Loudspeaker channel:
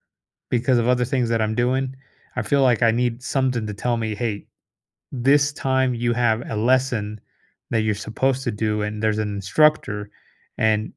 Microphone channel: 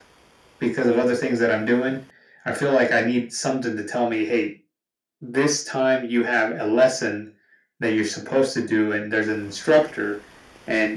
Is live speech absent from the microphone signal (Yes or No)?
Yes